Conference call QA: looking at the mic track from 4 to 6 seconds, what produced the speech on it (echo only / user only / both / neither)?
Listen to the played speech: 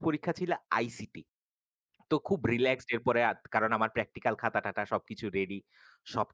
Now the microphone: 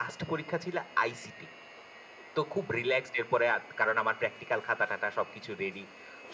echo only